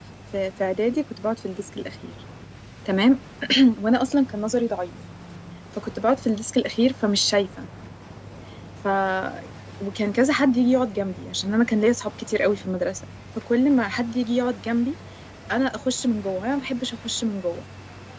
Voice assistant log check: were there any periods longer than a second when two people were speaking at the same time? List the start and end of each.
none

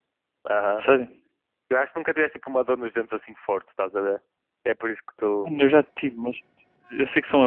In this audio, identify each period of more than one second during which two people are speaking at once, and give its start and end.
none

